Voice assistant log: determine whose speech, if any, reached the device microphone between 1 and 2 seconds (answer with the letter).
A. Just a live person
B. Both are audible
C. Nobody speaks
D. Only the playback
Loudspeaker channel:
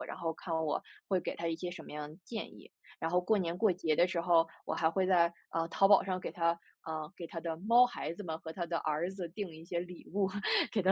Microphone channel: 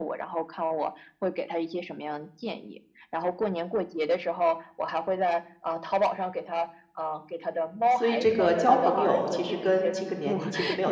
D